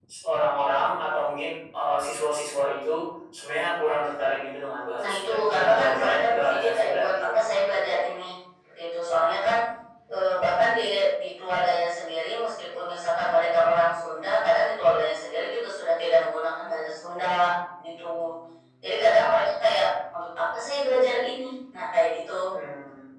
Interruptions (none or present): present